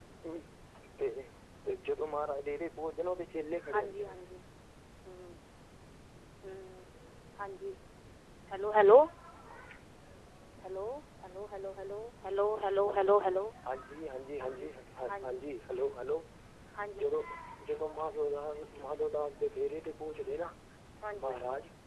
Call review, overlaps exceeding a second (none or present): none